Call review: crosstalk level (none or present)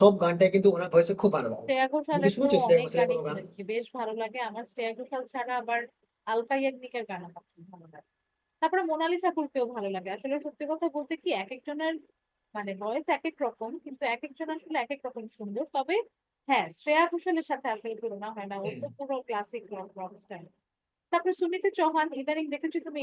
present